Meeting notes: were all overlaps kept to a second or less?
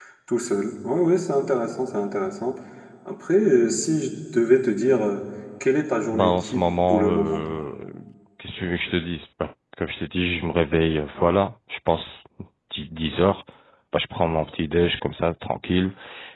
No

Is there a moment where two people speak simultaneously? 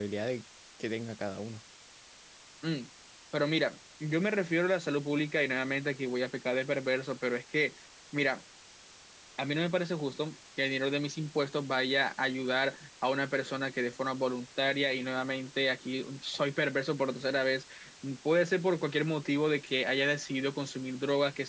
No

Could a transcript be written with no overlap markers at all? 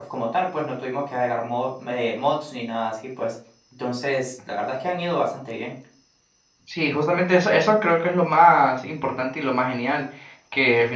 Yes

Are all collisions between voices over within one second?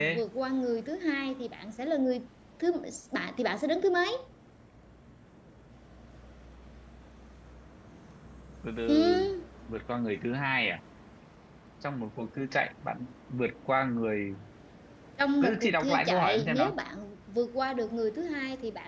No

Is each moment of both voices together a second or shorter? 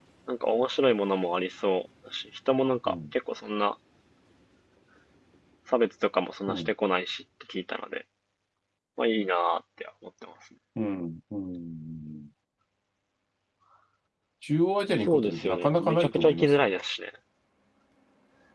No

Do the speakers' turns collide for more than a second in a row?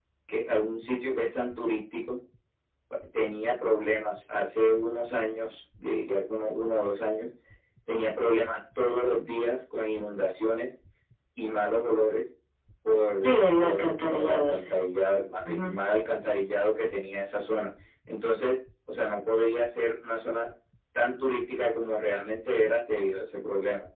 Yes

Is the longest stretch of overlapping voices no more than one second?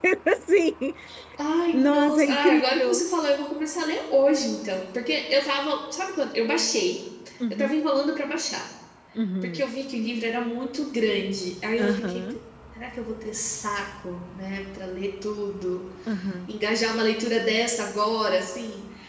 No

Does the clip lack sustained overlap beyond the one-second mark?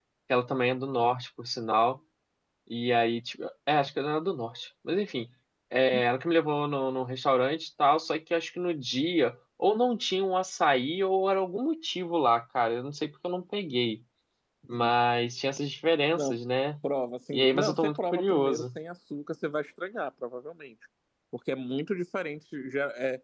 No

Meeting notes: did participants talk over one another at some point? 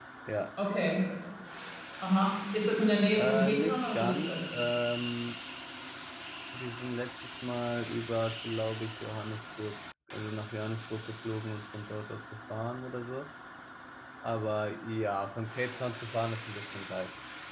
Yes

